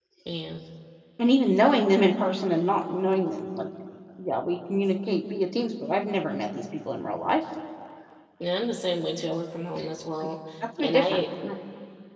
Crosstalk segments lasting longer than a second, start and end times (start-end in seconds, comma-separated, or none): none